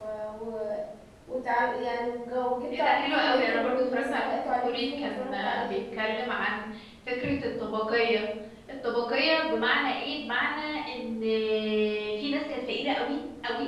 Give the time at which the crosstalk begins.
3 s

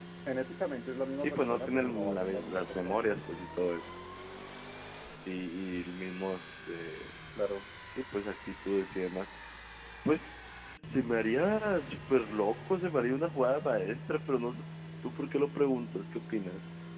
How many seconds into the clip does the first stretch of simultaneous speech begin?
1 s

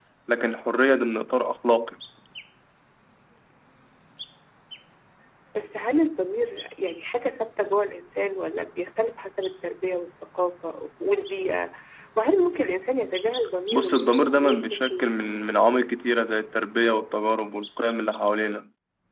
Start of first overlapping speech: 14 s

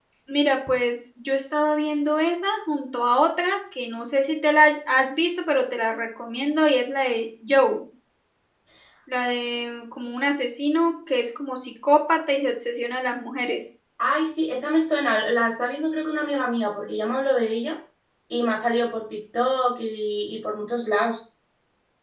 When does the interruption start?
none

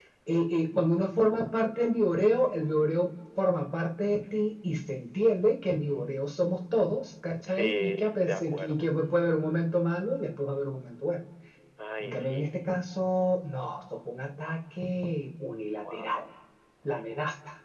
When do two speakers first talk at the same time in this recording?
7 s

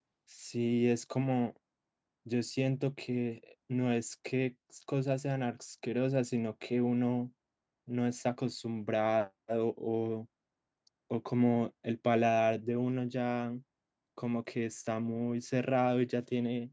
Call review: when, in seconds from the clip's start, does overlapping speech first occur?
none

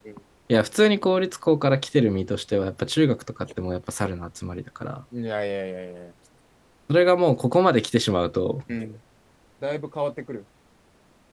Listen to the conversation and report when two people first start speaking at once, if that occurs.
none

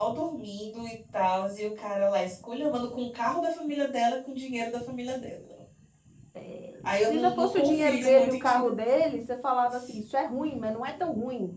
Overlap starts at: 7 s

